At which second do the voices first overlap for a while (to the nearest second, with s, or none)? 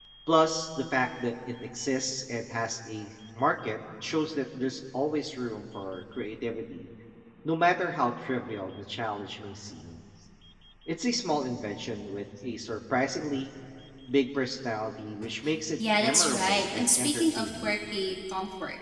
16 s